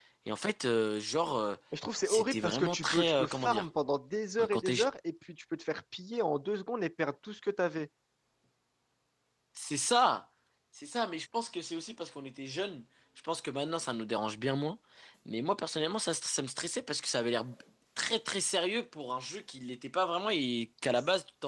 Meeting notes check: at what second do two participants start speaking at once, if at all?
2.0 s

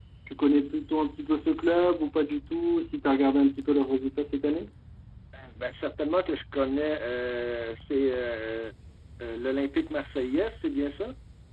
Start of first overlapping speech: none

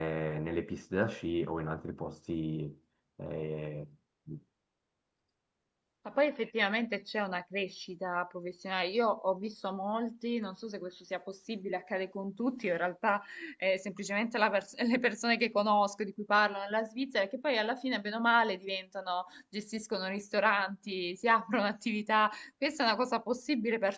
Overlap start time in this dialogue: none

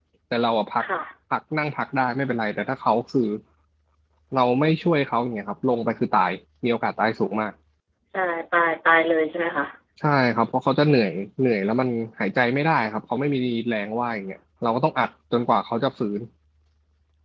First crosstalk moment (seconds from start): none

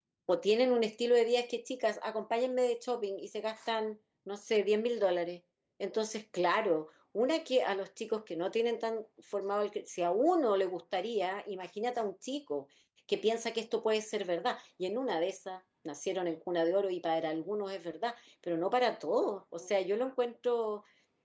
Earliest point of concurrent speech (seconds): none

